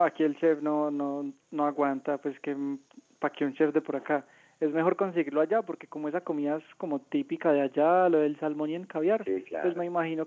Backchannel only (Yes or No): Yes